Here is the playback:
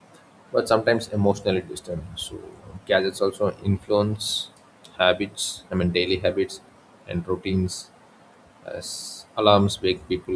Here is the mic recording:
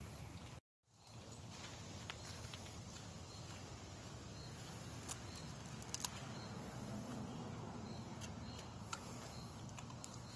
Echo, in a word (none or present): none